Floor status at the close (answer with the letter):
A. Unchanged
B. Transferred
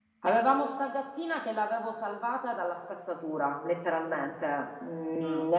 A